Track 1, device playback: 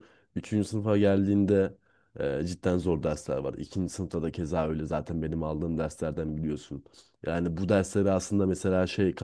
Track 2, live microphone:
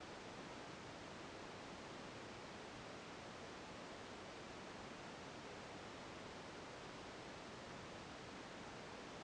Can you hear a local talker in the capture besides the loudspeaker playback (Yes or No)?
No